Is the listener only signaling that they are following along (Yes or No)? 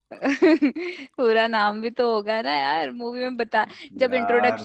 Yes